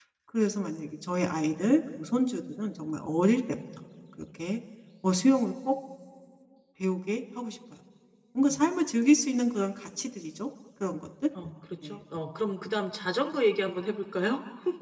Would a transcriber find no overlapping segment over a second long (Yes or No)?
Yes